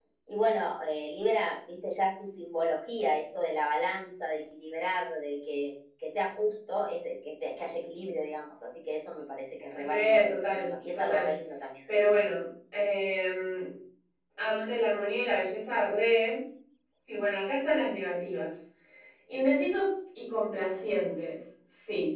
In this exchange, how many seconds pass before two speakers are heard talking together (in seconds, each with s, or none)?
9.7 s